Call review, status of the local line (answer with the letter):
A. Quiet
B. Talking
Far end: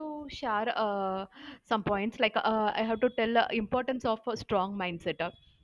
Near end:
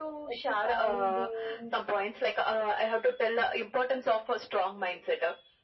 B